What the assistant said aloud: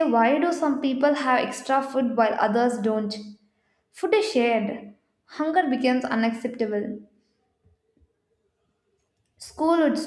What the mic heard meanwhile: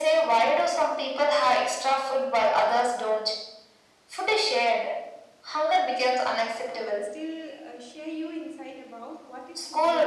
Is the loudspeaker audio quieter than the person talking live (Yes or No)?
No